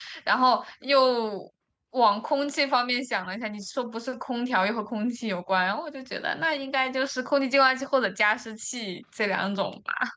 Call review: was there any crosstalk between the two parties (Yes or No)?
No